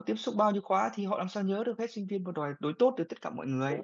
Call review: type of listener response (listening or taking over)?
taking over